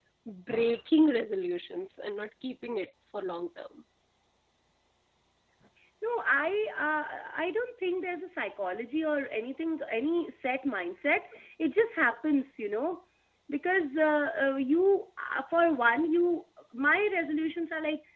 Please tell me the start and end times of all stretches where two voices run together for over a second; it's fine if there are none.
none

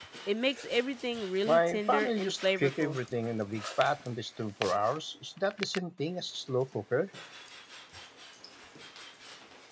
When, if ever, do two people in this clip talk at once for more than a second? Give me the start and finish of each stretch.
1.4-3.0

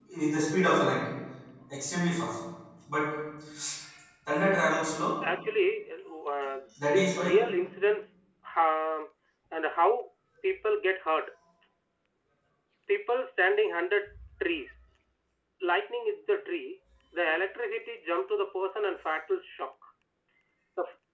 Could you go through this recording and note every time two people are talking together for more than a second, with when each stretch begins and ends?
none

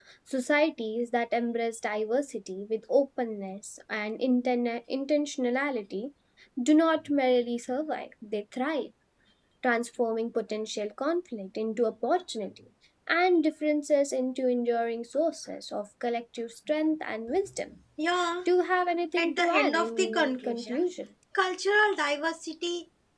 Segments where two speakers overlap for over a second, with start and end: 19.2-20.9

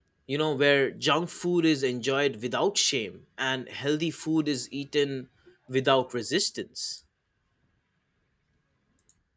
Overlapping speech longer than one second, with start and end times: none

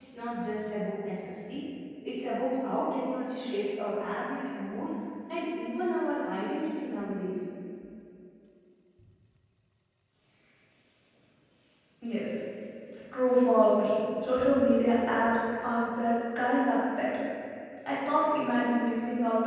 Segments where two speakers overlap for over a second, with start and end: none

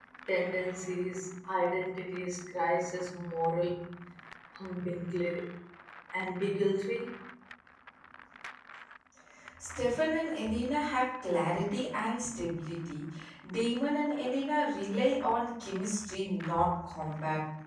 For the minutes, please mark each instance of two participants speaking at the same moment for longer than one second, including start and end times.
none

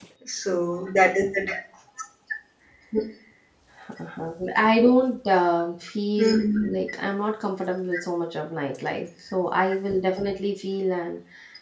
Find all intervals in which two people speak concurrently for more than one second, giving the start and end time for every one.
none

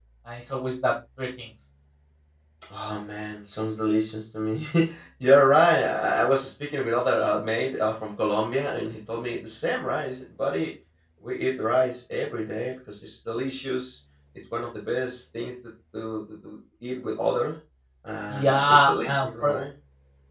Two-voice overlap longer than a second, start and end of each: 18.3-19.5

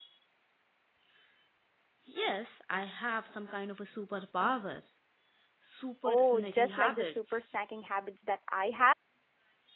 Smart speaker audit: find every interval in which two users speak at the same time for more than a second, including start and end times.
6.0-7.5

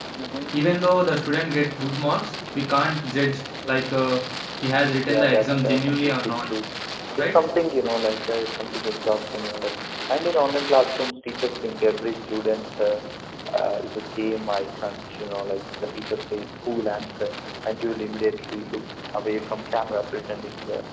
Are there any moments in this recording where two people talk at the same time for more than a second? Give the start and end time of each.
5.0-6.5

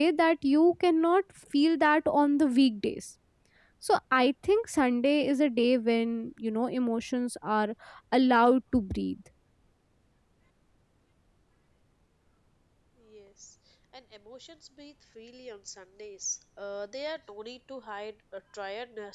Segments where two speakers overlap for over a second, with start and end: none

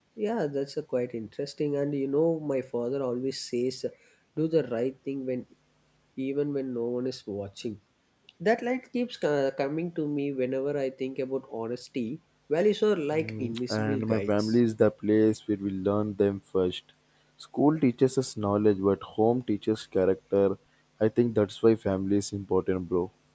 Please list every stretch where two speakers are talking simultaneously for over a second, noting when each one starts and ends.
13.1-14.6

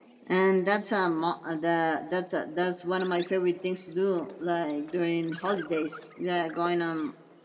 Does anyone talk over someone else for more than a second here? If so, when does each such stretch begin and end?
none

